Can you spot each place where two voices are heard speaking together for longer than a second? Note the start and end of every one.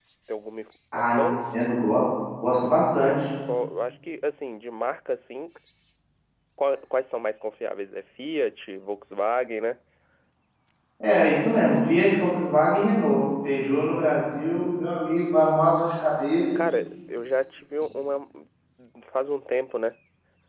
none

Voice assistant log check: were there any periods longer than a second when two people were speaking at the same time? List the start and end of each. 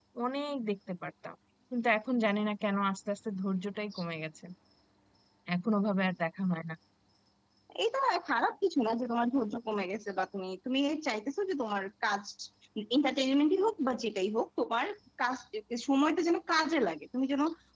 none

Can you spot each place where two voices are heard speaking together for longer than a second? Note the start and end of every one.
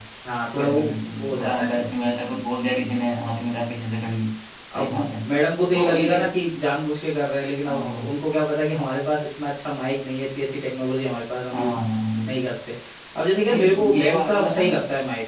13.5-14.8

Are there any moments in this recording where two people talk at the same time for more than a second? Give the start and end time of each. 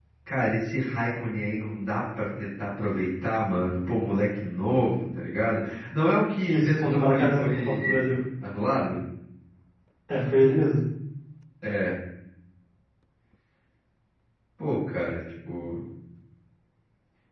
6.5-8.2

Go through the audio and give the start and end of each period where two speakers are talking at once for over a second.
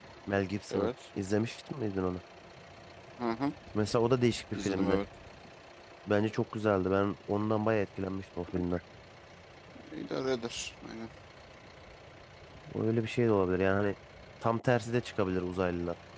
none

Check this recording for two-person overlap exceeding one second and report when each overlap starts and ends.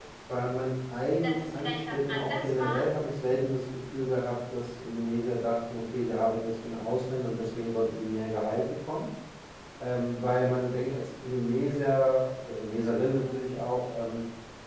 1.2-2.7

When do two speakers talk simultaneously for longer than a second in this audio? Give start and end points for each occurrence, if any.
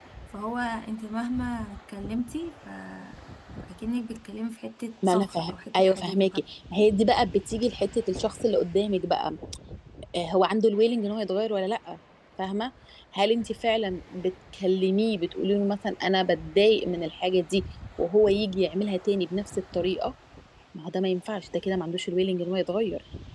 5.1-6.4

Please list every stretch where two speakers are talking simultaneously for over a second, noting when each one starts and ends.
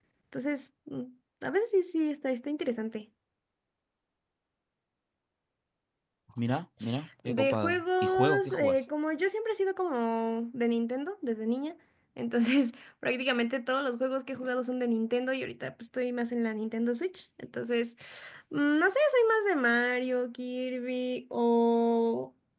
7.2-8.8

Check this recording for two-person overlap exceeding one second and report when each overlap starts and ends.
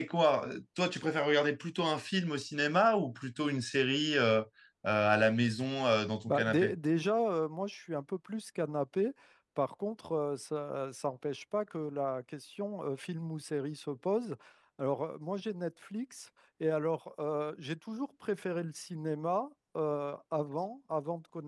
none

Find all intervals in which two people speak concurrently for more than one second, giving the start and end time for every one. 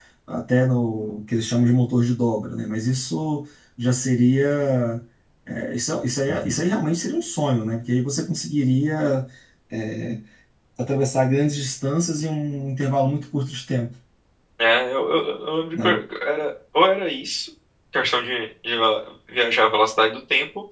none

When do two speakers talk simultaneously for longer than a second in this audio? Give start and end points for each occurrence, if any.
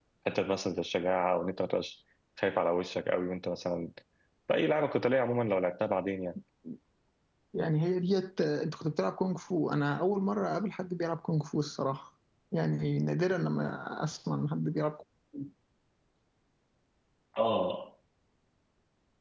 none

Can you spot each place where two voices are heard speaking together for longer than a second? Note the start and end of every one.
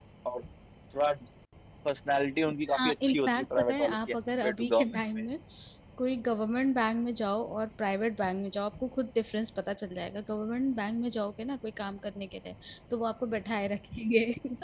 2.8-5.0

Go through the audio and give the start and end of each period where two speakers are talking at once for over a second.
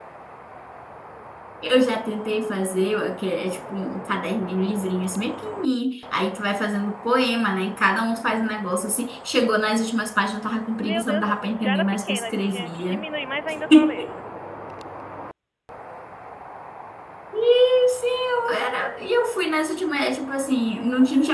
10.8-13.0

